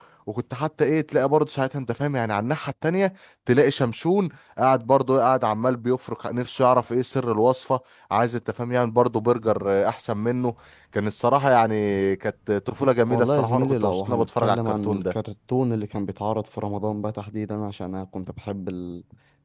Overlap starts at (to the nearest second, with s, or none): 13 s